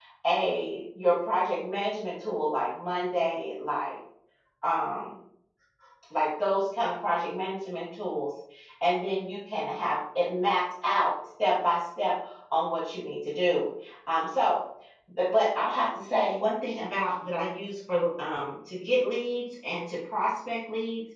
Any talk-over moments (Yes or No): No